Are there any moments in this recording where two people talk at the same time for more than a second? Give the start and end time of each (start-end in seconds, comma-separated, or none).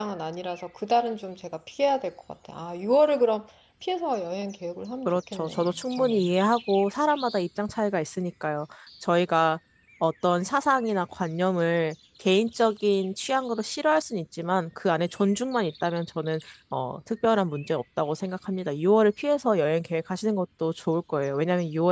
5.0-6.3